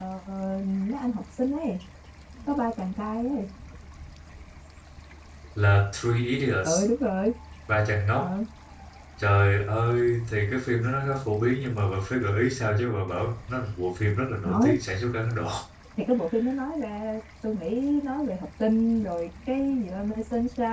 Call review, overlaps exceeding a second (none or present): none